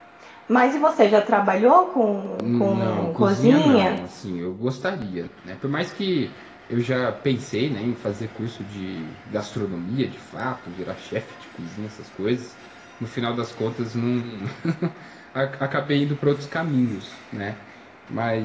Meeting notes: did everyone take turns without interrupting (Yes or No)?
No